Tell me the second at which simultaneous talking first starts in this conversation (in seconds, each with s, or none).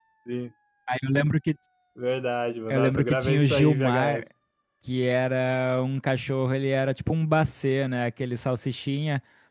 2.7 s